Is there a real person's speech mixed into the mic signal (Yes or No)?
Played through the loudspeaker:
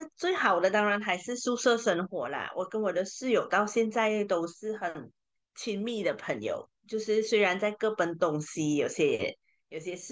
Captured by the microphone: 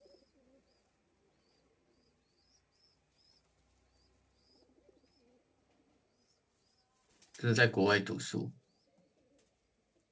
Yes